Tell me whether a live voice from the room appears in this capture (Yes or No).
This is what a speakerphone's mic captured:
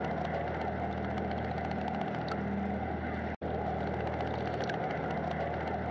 No